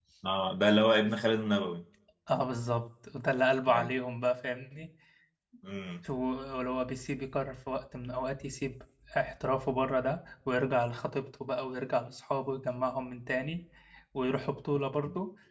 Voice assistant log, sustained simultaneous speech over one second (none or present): none